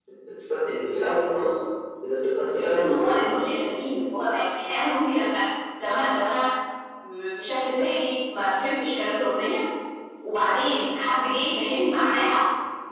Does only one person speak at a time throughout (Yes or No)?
No